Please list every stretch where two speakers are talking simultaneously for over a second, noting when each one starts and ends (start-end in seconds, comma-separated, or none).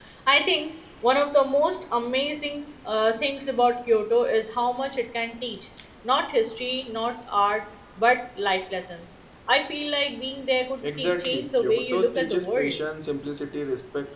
11.0-12.8